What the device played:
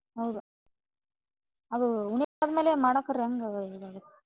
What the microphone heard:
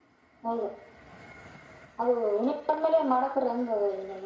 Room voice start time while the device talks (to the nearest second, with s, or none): none